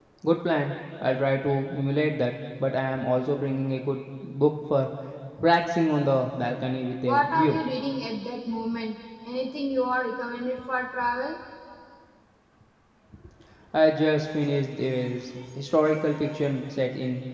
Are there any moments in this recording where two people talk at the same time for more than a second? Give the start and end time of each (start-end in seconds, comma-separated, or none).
none